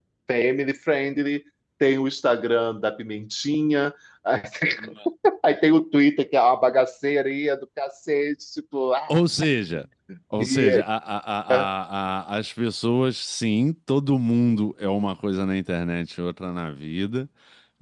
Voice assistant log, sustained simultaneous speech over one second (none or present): none